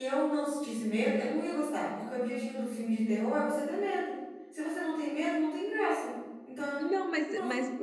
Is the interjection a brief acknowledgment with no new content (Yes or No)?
No